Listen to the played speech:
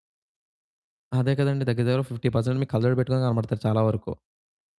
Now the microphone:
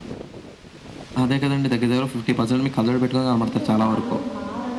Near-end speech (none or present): present